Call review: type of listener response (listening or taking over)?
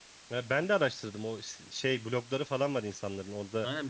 taking over